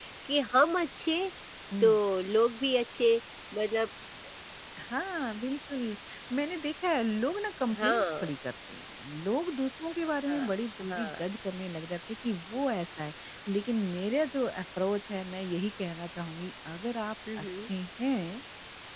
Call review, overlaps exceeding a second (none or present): none